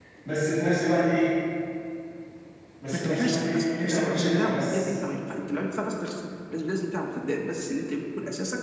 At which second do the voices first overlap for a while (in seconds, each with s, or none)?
2.9 s